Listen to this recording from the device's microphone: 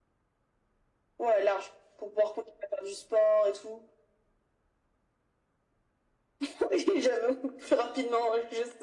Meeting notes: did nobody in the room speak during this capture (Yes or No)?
Yes